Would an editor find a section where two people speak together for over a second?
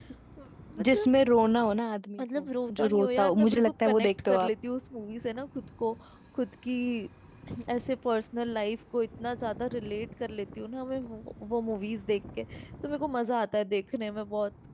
Yes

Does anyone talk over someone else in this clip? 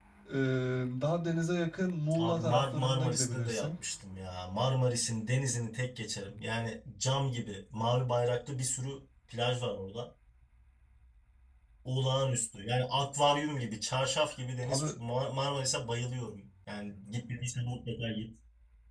Yes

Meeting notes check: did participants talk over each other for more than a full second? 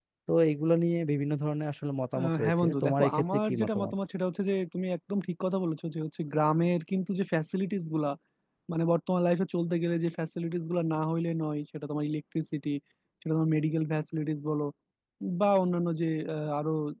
Yes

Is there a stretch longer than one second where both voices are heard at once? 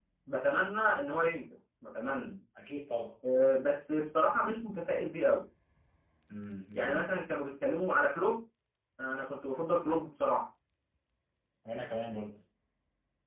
No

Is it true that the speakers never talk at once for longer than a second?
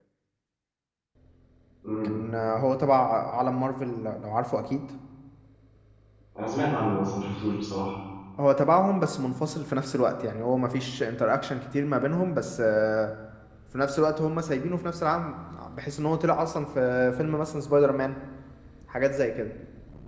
Yes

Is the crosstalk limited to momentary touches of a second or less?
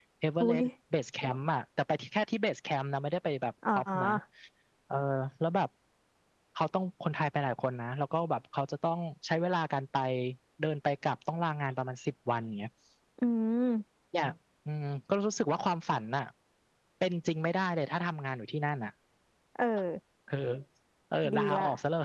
Yes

